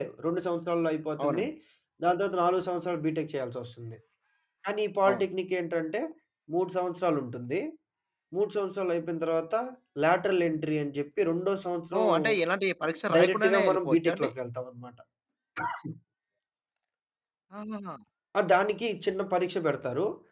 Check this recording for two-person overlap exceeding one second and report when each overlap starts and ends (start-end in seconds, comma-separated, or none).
12.8-14.3